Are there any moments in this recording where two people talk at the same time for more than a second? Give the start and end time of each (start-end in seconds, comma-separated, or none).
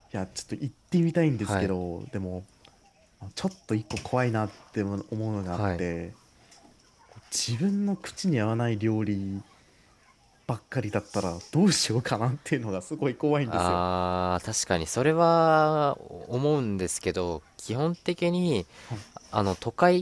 none